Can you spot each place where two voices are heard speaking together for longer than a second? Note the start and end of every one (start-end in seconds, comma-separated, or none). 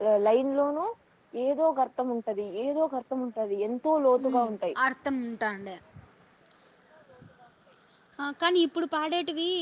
none